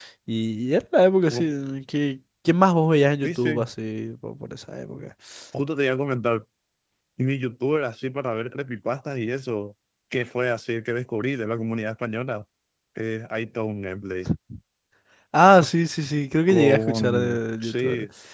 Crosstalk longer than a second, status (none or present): present